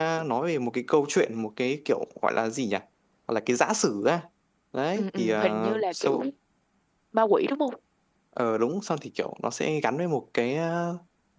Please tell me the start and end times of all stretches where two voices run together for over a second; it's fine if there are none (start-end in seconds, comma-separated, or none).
5.0-6.2